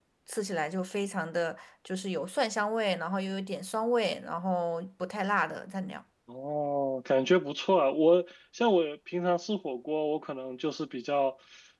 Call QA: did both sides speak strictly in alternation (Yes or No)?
Yes